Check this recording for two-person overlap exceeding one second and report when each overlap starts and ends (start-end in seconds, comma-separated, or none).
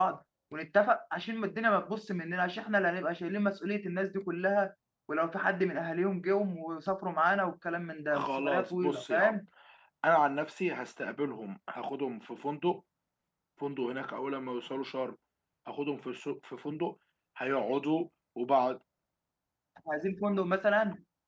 8.1-9.4